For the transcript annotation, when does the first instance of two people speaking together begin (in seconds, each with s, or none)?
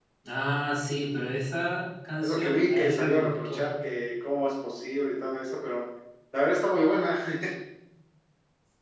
2.2 s